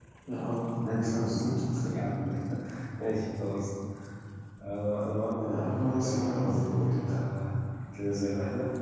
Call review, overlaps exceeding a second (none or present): present